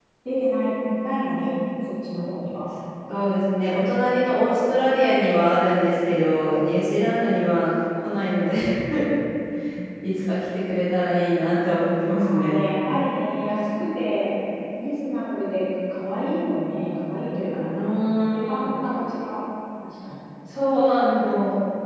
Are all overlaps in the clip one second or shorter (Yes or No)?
Yes